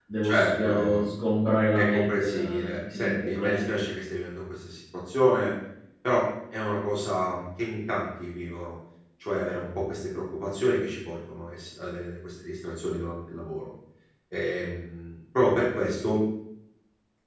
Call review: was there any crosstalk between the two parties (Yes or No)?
Yes